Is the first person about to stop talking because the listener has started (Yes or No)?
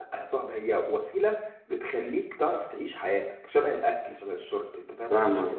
Yes